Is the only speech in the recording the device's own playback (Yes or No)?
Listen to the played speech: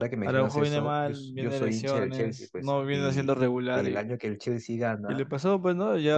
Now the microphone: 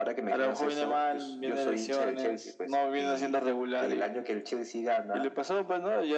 Yes